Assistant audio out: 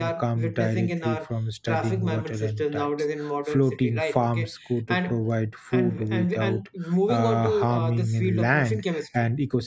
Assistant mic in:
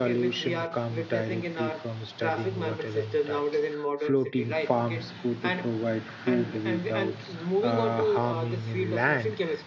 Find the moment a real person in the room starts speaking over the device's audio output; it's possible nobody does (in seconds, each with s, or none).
none